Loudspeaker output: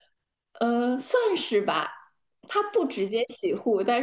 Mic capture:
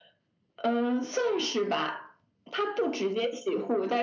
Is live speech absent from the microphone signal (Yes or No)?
Yes